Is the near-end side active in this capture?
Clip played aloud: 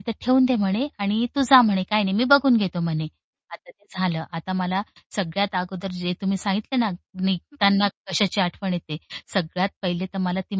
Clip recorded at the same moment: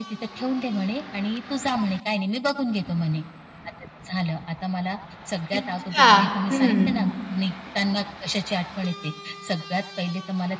Yes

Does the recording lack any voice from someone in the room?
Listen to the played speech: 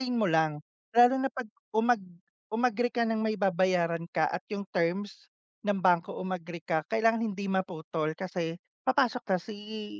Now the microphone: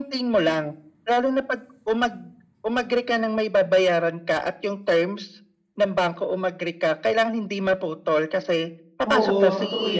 No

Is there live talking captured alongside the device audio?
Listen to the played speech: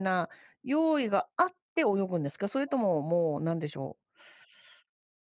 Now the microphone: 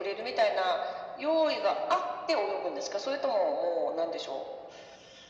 No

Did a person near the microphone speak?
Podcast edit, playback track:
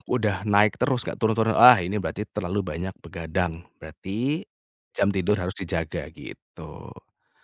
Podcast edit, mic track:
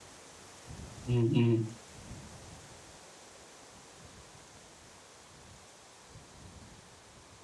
Yes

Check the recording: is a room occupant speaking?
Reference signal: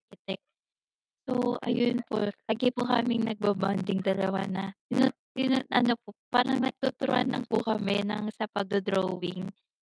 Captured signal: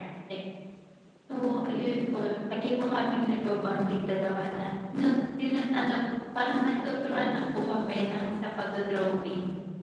No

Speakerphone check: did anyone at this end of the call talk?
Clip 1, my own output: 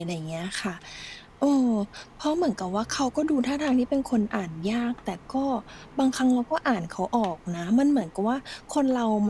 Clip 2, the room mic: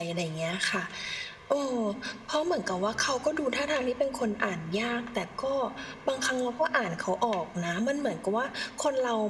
No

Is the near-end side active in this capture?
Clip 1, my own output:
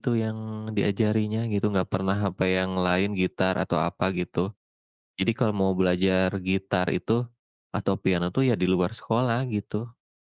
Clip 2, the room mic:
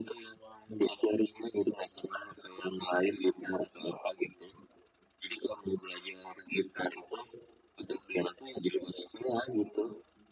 No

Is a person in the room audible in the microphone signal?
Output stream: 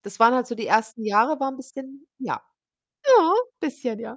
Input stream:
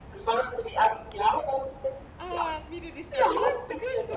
Yes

